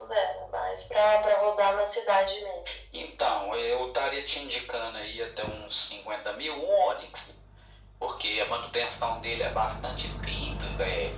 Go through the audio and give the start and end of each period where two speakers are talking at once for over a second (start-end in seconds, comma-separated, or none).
none